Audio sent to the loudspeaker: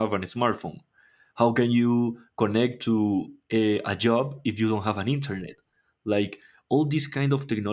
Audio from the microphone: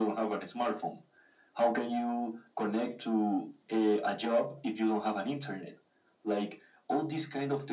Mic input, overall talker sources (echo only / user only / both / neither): echo only